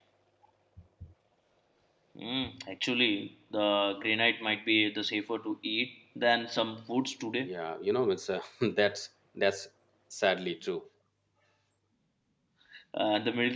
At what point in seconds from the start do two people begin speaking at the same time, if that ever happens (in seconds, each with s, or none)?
none